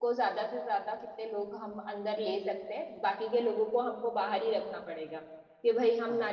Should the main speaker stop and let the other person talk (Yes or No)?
No